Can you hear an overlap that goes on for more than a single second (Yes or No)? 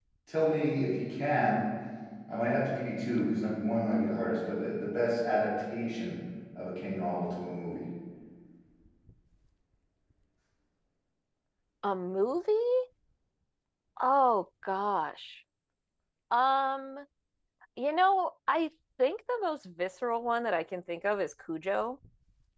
No